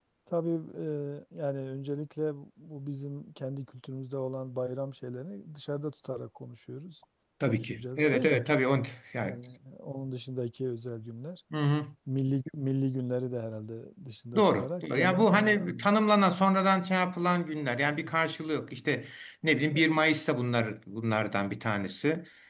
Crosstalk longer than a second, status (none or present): present